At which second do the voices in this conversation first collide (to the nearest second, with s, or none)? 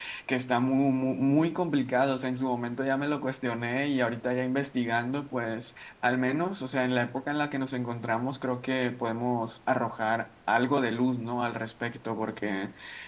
none